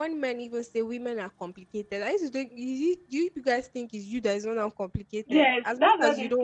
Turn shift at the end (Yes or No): Yes